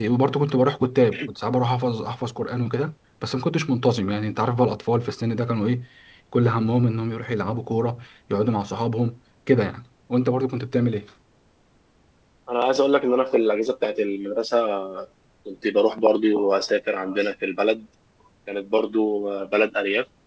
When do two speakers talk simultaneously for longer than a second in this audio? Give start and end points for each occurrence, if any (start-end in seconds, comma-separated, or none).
none